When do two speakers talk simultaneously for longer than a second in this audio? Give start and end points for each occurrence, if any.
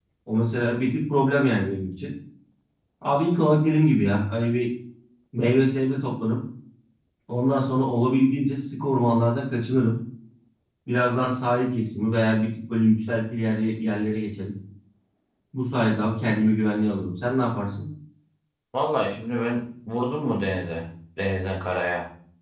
none

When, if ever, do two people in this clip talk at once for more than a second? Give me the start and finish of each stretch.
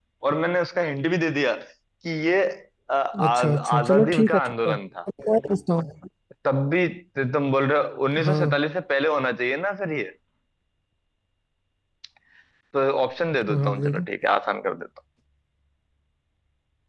3.2-4.7

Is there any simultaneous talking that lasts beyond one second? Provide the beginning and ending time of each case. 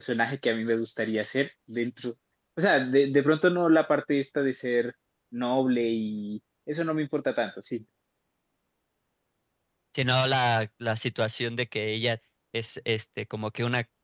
none

